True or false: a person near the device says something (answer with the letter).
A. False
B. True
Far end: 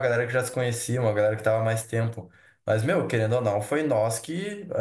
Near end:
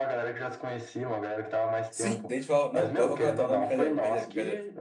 B